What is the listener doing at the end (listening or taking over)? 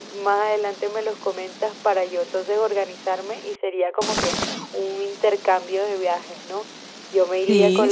listening